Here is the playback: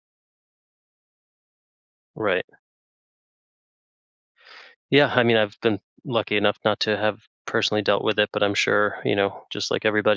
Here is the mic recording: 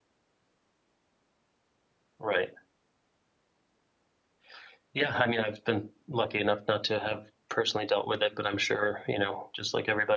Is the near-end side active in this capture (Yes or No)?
No